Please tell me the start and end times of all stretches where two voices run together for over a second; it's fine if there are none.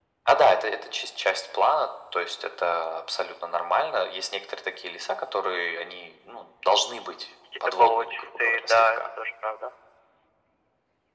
7.7-9.0

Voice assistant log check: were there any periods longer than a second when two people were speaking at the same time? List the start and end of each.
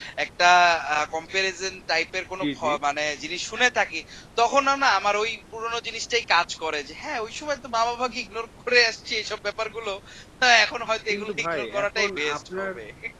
11.1-12.7

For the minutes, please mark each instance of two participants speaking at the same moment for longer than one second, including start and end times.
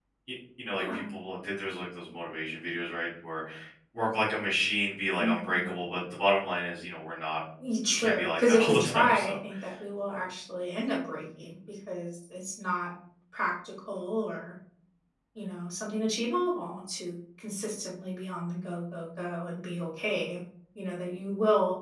7.9-9.3

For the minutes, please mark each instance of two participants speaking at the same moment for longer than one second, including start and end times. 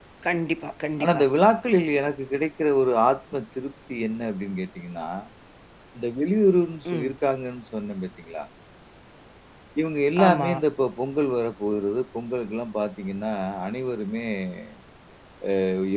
none

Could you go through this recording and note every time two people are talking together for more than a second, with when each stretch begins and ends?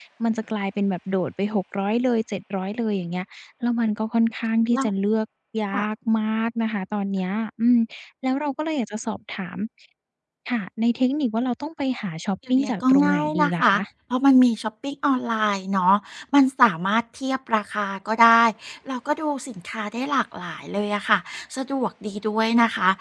12.5-13.8

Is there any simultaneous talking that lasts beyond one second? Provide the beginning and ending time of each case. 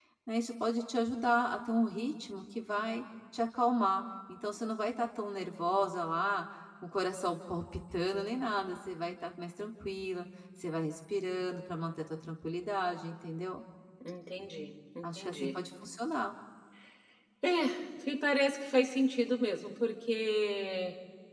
none

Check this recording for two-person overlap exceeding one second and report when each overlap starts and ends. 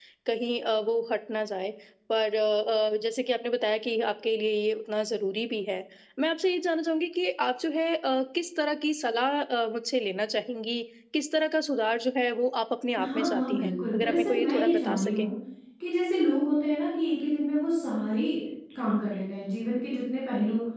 13.0-15.3

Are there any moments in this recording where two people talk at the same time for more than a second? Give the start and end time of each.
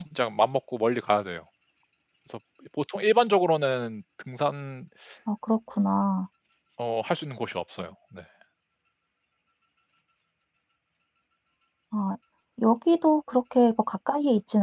none

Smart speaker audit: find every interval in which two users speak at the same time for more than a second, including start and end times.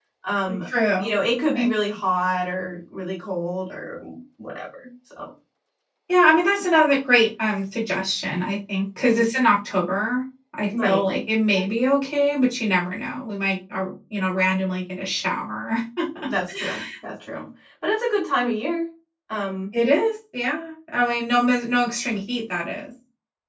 none

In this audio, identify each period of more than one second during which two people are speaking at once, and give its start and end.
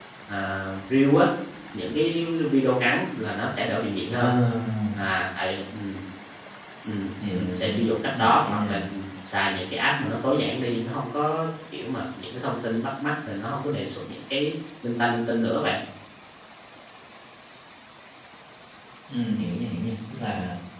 7.3-8.8

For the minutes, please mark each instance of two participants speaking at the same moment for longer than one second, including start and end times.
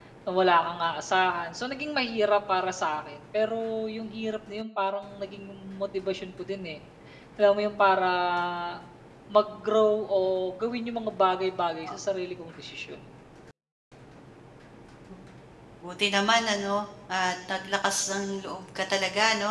none

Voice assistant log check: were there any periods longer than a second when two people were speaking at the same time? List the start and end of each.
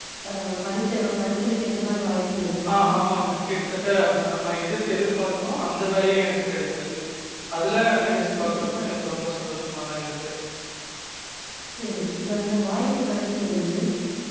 none

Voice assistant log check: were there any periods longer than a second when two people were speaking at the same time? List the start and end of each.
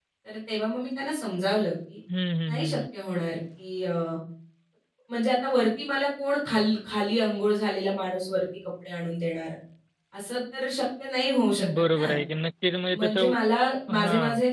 none

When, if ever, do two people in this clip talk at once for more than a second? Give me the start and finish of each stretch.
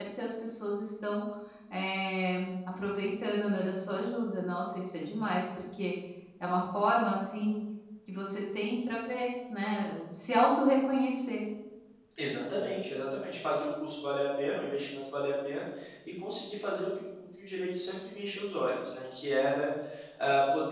none

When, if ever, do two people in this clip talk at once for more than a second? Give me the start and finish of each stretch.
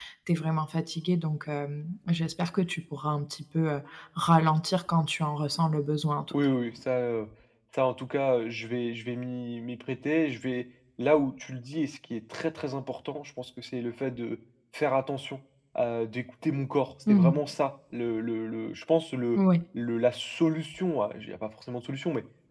none

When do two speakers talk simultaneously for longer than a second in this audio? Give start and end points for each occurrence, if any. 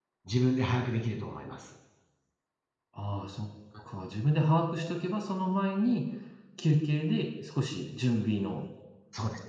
none

